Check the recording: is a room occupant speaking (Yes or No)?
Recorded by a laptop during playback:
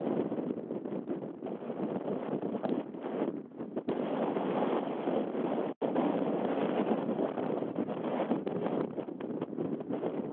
No